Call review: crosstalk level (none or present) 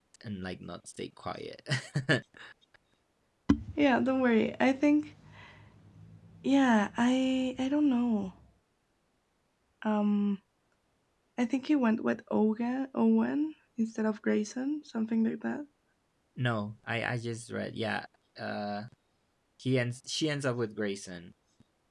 none